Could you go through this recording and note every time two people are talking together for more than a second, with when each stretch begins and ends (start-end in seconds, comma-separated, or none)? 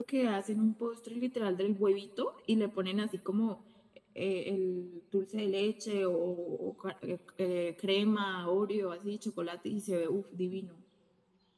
none